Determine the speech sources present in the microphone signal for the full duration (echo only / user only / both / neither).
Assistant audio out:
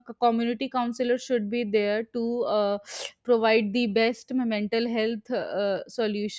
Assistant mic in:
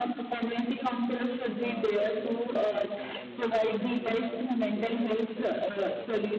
both